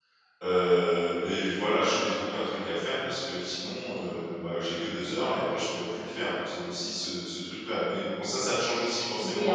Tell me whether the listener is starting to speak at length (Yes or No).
Yes